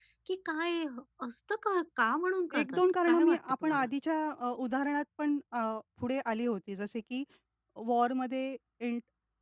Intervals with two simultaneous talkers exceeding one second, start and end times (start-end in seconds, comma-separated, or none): 2.5-3.9